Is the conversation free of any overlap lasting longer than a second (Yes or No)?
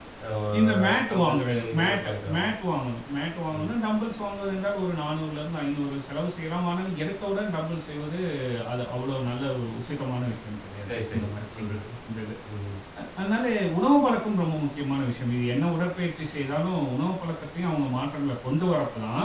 No